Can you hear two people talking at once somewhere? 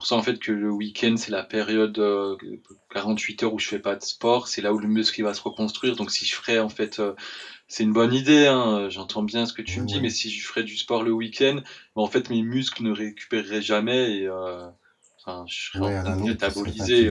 Yes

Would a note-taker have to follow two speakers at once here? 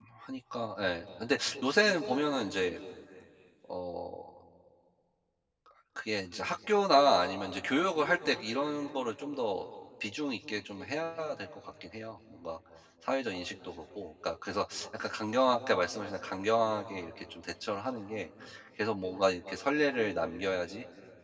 No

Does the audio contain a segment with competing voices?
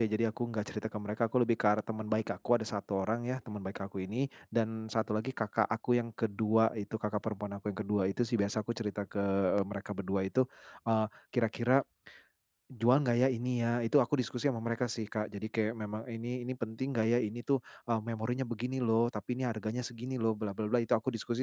No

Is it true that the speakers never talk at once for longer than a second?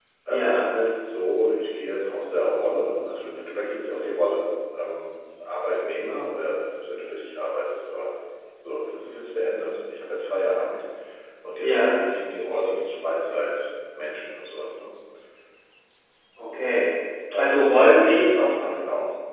No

